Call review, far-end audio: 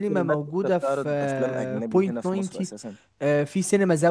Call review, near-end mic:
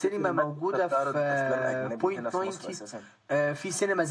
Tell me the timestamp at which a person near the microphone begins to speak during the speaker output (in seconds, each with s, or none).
none